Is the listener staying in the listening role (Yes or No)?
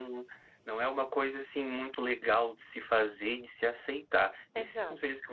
Yes